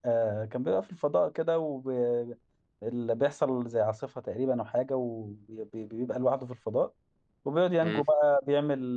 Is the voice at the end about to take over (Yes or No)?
No